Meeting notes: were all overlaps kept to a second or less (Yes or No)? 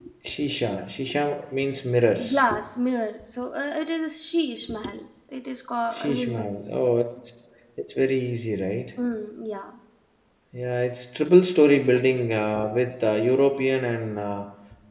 Yes